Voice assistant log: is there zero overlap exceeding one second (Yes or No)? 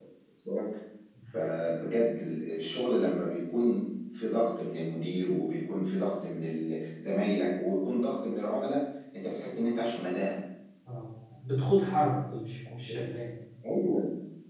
Yes